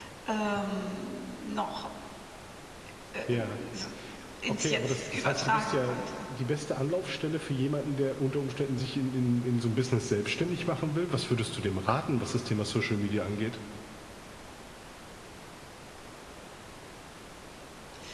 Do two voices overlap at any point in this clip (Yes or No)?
Yes